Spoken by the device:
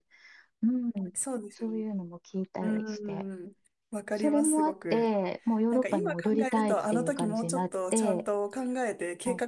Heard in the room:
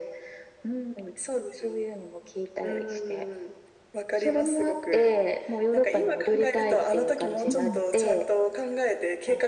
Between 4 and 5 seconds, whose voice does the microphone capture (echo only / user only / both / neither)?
echo only